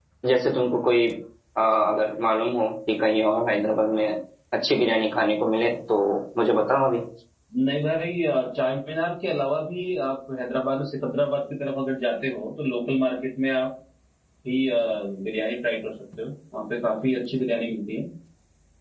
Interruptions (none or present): none